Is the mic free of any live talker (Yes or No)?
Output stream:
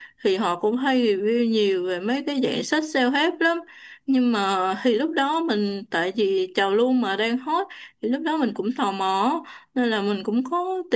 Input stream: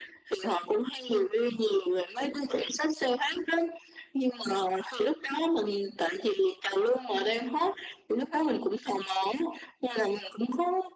Yes